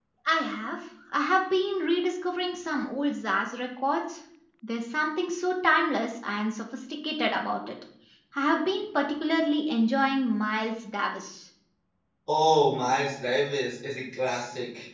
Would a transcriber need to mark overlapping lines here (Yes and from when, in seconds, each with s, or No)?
No